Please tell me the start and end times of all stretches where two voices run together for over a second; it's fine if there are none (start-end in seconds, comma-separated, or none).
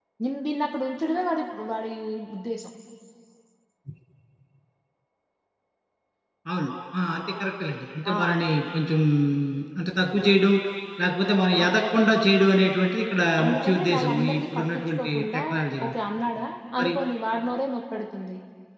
13.4-15.4